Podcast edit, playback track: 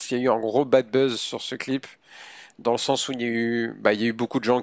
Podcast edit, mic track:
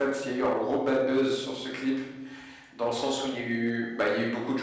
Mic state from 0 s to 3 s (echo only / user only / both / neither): echo only